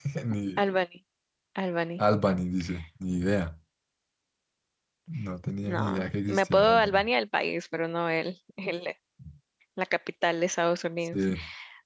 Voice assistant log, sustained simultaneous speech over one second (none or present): present